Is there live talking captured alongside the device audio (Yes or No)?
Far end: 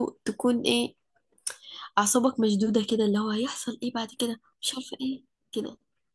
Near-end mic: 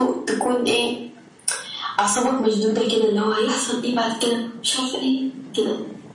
No